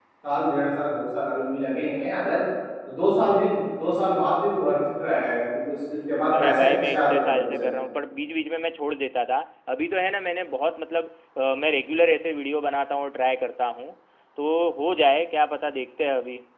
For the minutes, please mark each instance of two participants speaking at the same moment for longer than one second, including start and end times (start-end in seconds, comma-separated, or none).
6.4-7.6